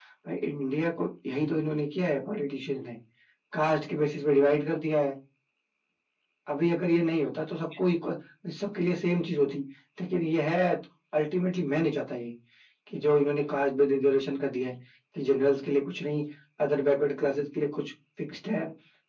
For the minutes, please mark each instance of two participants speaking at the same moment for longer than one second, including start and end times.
none

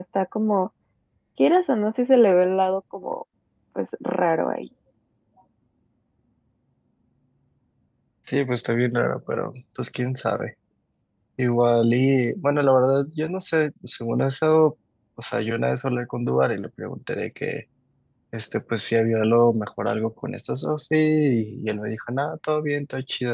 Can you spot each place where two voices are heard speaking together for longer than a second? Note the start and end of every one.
none

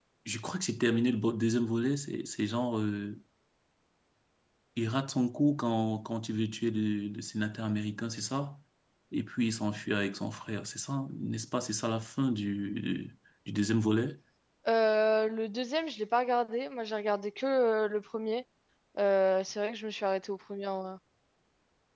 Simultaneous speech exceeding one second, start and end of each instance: none

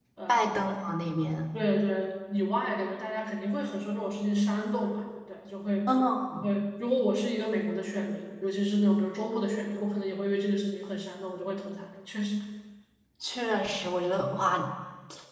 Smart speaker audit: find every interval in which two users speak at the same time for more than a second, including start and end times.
none

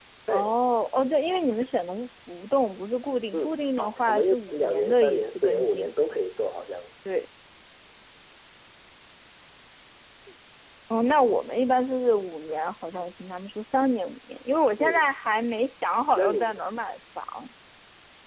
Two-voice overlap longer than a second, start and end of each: 3.3-5.9

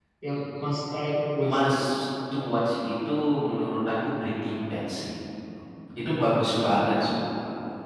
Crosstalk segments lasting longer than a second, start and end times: none

